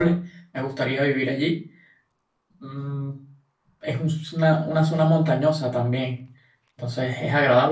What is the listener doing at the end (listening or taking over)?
listening